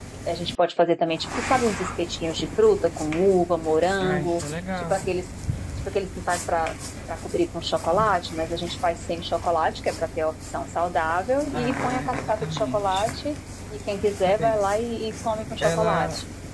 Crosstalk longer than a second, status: present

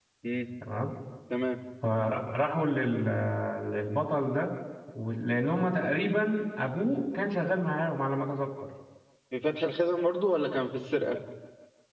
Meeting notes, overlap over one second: none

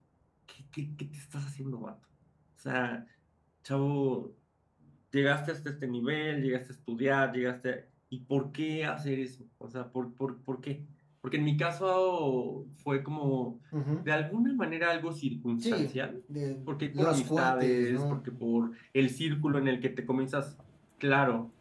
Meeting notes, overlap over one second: present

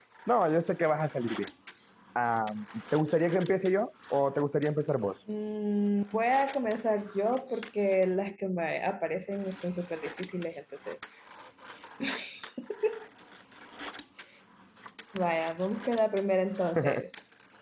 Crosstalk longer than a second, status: none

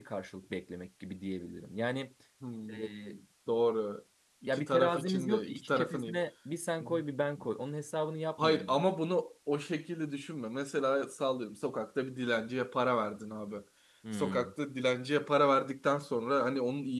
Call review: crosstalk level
present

